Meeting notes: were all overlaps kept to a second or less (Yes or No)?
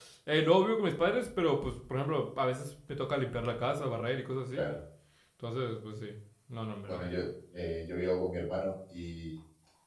Yes